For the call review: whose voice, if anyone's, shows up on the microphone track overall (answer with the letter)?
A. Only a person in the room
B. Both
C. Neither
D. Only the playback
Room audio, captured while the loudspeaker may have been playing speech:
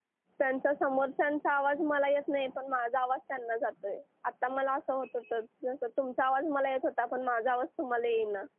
A